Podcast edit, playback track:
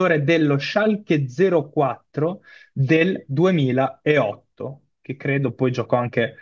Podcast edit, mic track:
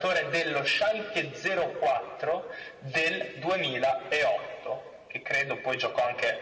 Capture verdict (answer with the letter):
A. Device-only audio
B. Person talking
A